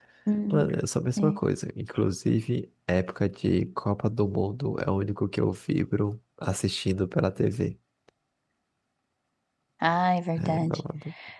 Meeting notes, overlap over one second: none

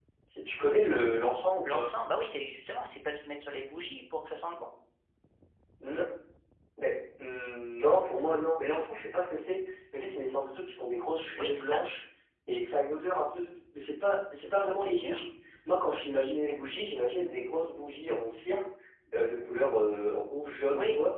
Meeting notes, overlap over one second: none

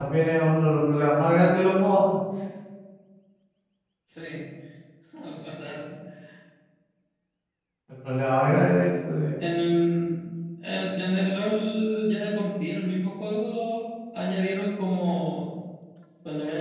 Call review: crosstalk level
none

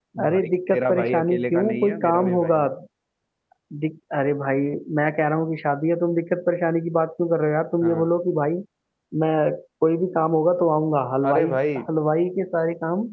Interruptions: present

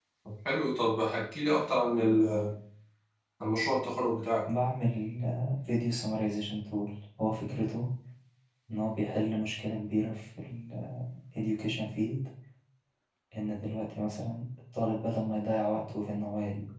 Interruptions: none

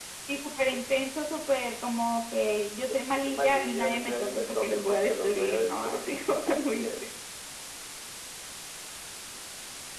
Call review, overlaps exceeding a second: present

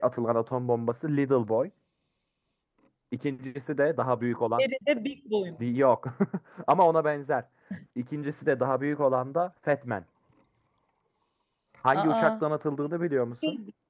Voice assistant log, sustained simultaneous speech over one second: none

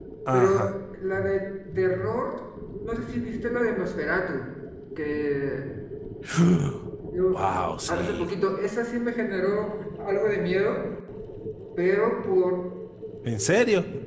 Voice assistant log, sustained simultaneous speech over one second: none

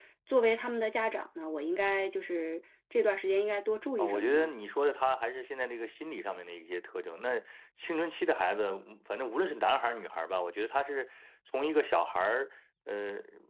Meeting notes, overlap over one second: none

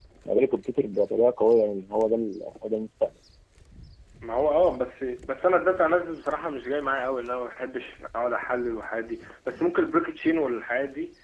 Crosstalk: none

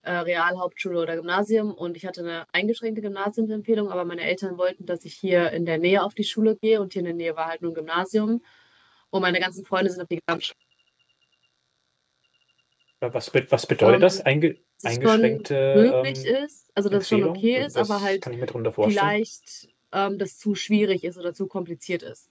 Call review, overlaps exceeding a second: present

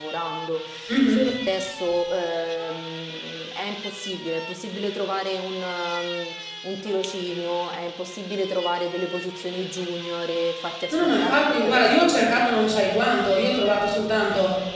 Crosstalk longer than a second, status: present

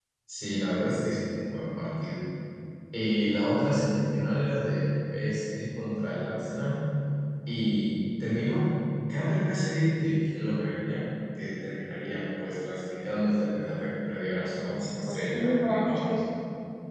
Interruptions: present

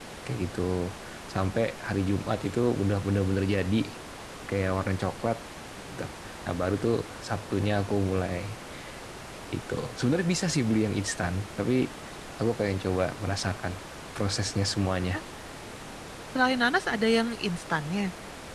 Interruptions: none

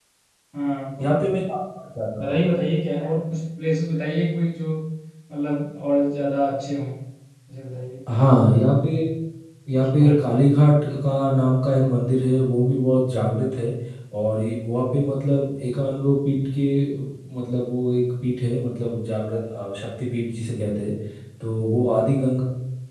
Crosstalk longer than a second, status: none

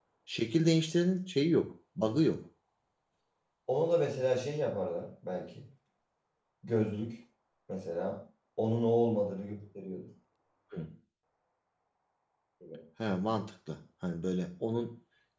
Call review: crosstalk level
none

